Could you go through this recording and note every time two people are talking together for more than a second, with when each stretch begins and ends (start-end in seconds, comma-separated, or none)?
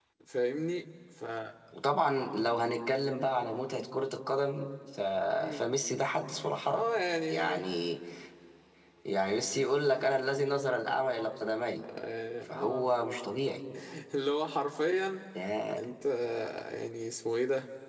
none